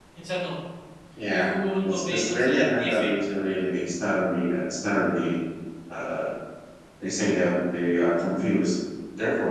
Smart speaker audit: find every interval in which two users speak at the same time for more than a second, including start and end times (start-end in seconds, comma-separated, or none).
1.9-3.1